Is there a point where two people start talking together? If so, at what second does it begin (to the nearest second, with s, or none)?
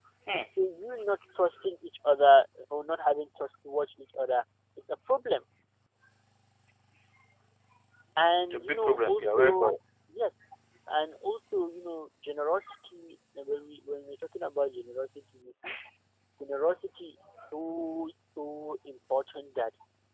9 s